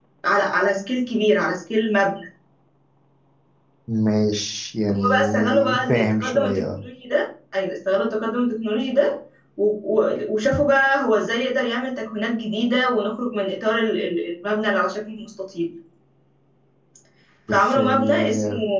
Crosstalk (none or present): present